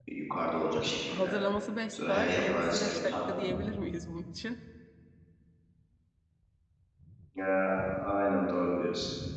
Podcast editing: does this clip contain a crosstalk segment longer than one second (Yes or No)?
Yes